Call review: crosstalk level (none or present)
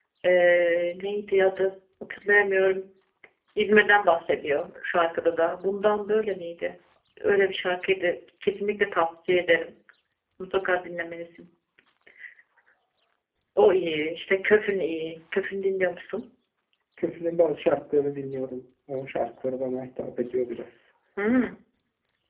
none